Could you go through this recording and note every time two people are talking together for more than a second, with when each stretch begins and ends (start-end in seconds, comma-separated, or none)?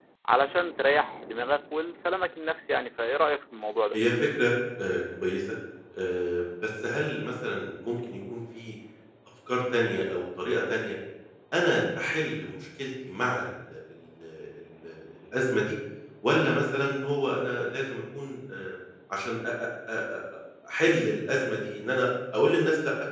none